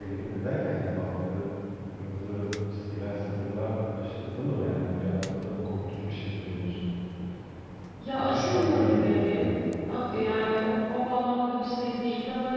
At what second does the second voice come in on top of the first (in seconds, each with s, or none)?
8.2 s